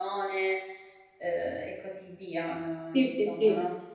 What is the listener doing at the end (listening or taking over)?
taking over